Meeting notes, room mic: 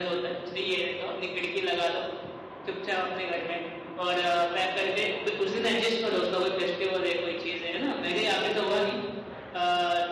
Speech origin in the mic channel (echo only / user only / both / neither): echo only